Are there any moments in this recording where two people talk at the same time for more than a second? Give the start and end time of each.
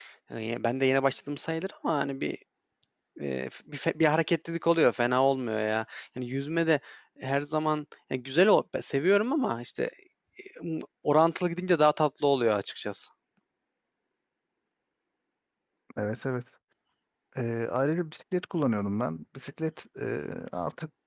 none

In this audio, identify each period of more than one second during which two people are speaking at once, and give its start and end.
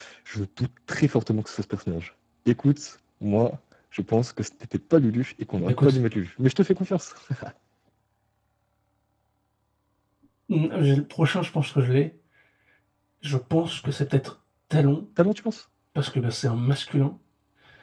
none

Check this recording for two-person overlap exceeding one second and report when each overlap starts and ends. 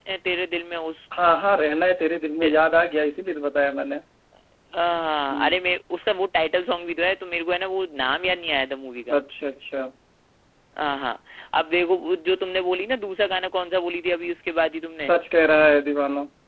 none

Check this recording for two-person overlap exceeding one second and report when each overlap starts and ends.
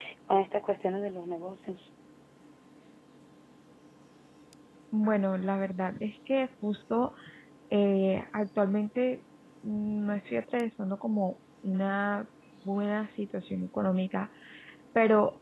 none

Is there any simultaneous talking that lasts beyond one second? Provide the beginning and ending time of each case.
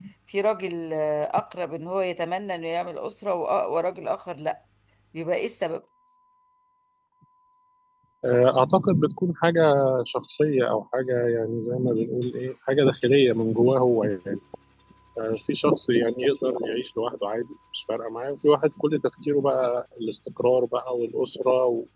none

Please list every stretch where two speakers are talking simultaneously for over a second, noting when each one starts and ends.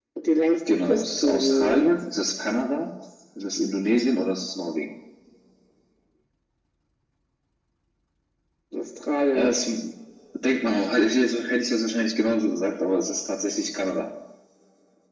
0.7-1.9

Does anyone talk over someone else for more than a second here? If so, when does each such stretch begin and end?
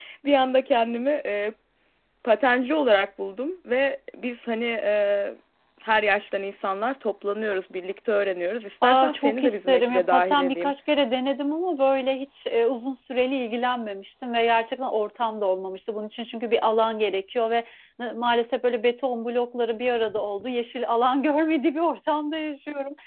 8.8-10.7

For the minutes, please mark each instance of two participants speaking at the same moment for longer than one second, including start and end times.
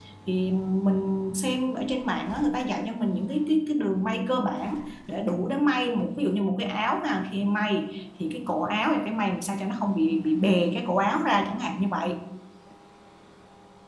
none

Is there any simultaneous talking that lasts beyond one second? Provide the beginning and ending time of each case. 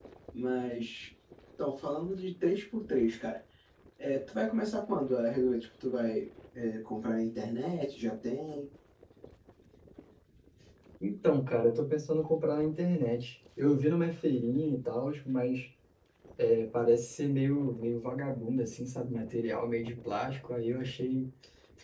none

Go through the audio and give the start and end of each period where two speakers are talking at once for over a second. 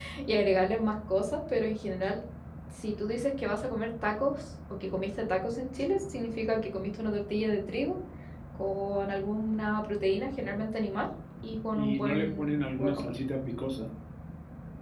11.8-13.2

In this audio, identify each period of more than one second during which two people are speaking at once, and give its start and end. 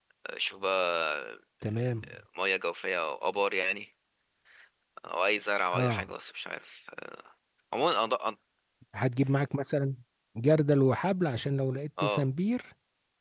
none

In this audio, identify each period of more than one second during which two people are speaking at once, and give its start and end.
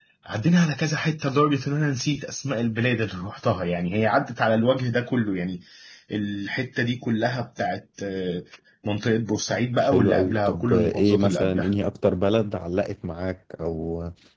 9.8-11.7

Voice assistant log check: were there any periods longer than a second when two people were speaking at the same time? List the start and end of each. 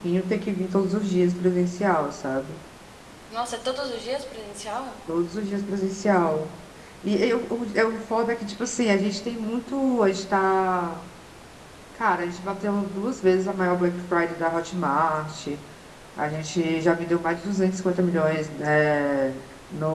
none

